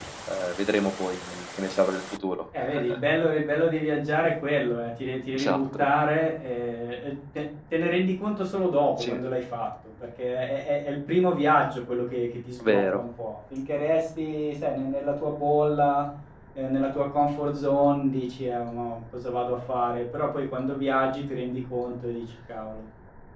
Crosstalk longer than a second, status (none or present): none